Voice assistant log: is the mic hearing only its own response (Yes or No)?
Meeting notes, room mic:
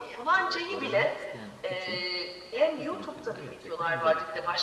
No